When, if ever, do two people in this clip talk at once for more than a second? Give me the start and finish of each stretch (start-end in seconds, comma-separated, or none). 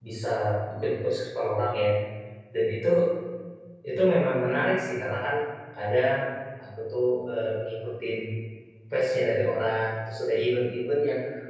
none